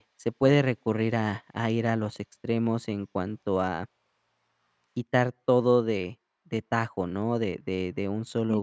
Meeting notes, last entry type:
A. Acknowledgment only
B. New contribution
A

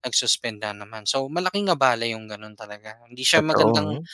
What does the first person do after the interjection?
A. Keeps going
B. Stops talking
A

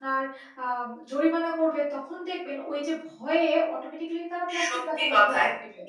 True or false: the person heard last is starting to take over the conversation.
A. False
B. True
B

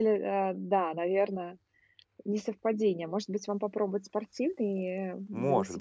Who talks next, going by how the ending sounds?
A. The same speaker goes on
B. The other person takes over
B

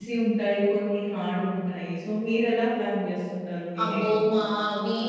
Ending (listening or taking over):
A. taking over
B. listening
A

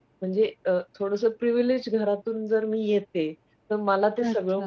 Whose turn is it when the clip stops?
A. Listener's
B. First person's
B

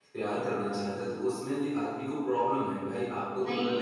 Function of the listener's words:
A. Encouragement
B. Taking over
B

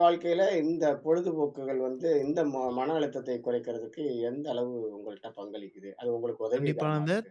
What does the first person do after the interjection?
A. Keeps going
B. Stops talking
B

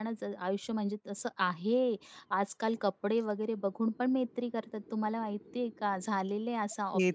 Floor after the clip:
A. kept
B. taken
B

